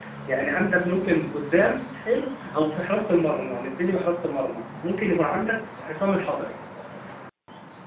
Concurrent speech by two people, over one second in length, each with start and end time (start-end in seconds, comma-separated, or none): none